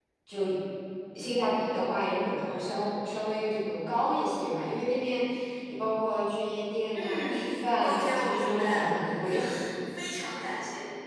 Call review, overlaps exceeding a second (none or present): present